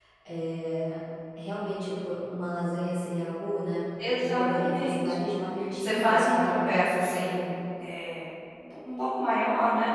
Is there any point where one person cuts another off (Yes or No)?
Yes